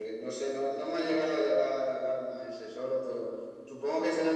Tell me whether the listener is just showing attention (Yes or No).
Yes